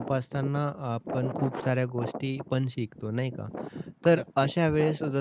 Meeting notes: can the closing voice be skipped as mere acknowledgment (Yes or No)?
Yes